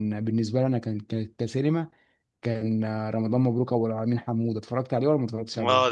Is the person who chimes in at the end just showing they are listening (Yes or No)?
No